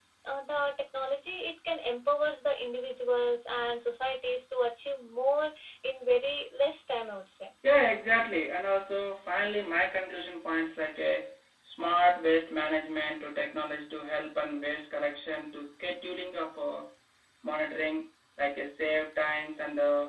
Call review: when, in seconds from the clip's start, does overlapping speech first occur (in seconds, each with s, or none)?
none